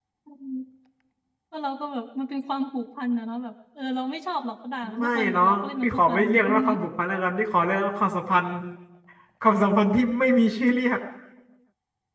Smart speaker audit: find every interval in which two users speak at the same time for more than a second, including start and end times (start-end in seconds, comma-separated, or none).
5.0-6.6